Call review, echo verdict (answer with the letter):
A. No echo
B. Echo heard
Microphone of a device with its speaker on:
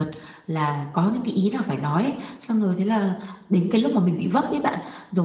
A